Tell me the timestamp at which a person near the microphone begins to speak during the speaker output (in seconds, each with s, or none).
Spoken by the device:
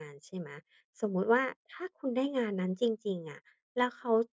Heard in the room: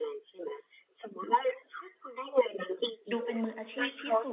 3.1 s